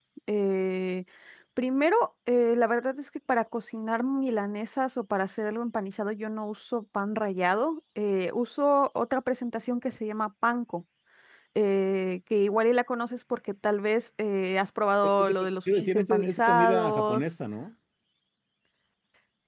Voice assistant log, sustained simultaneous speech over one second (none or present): present